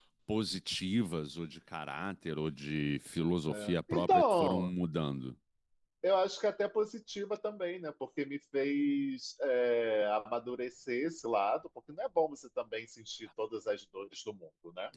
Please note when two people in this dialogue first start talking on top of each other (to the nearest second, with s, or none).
3 s